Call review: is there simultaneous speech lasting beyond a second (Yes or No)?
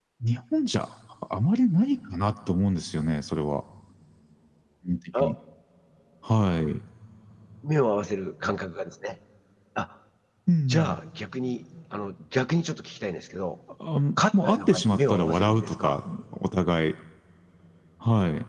Yes